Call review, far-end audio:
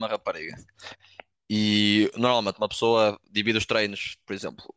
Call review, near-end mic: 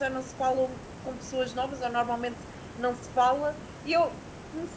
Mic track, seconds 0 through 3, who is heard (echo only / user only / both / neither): user only